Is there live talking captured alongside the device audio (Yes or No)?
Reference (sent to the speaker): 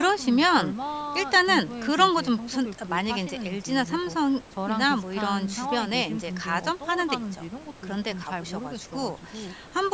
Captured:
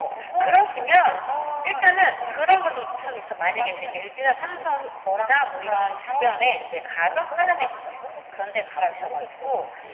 No